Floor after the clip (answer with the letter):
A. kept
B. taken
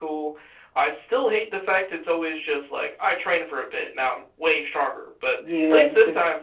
B